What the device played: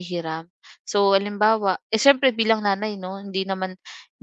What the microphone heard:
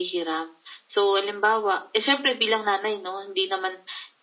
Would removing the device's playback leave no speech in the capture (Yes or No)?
Yes